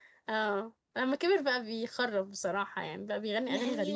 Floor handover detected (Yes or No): Yes